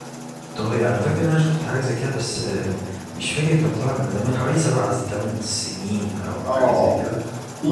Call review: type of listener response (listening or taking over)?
taking over